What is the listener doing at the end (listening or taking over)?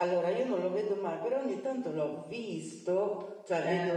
listening